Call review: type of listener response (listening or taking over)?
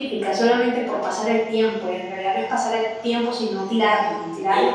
taking over